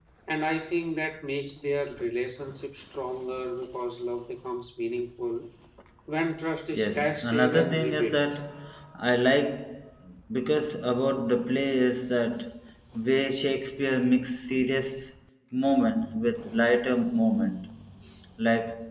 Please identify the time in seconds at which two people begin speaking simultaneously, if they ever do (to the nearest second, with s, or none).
7 s